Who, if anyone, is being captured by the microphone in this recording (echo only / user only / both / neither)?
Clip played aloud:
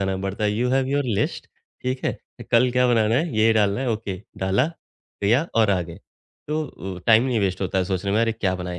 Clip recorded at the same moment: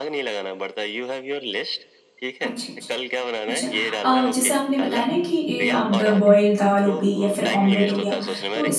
both